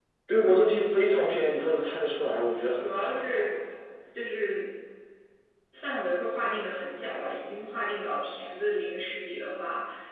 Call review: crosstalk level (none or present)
present